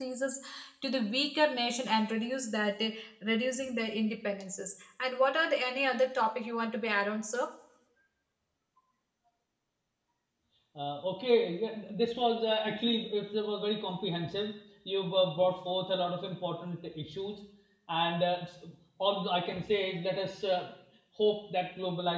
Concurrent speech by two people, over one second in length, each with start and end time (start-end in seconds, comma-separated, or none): none